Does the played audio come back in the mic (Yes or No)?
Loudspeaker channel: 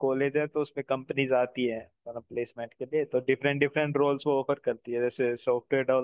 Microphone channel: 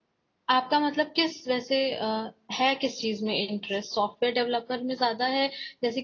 No